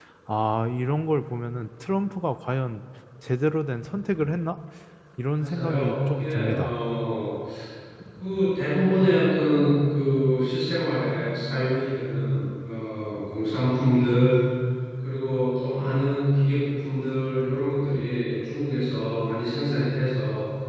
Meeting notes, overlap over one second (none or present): present